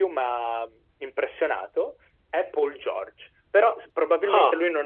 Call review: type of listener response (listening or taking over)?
listening